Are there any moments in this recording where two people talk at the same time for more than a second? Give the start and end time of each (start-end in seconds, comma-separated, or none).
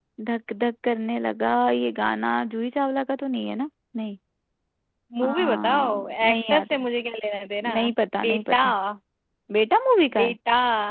5.2-6.8